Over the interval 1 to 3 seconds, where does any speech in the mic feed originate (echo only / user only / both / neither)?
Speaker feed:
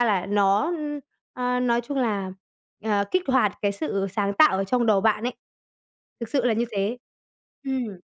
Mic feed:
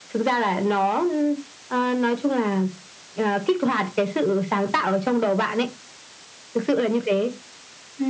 echo only